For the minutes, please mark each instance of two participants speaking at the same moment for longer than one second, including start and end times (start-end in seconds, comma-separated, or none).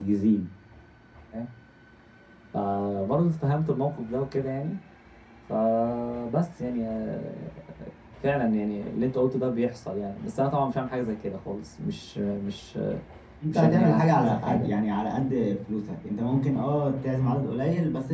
13.5-14.7